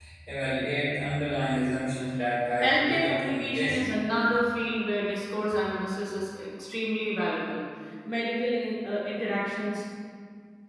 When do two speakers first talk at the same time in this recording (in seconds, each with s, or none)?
2.6 s